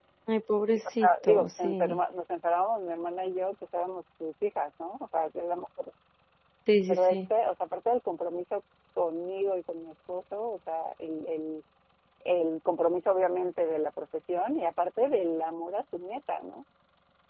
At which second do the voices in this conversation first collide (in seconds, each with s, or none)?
0.7 s